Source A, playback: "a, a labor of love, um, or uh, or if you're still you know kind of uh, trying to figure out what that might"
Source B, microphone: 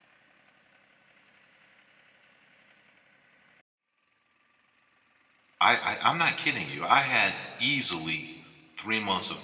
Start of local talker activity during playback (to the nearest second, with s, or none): 6 s